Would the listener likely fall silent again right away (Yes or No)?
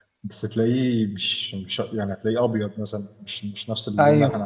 No